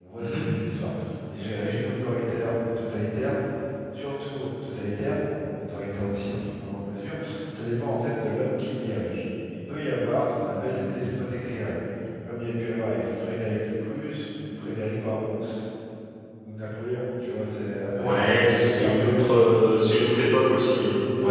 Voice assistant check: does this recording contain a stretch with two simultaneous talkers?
Yes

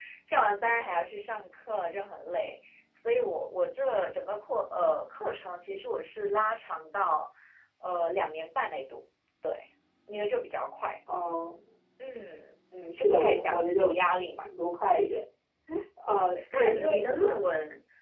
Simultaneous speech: Yes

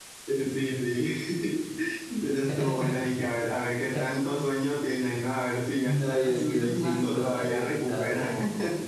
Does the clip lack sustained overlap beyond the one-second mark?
No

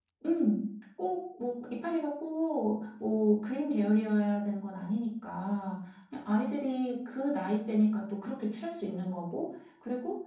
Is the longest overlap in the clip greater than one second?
No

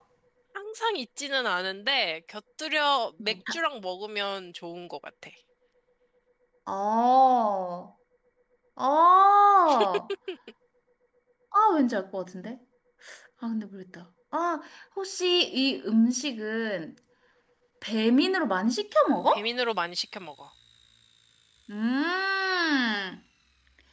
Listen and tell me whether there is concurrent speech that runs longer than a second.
No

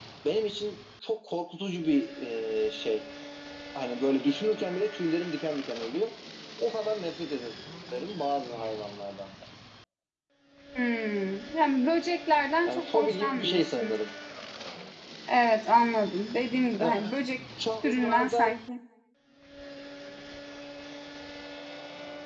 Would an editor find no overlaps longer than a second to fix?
No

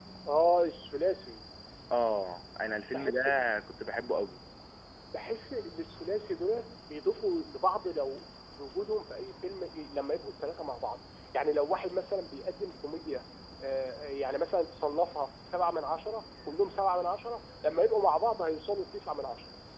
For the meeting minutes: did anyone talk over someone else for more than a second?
No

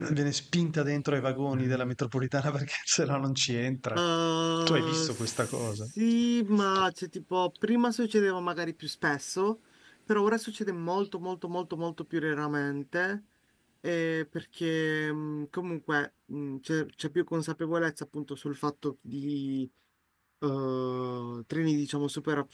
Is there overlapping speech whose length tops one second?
Yes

